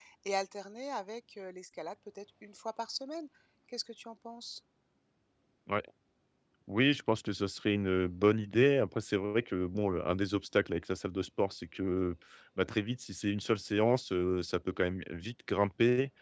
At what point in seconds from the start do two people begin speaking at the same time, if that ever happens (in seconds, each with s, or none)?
none